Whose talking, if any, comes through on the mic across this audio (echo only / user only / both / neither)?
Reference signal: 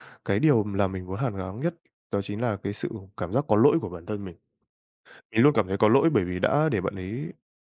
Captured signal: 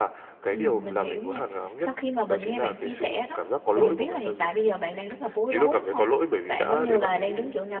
both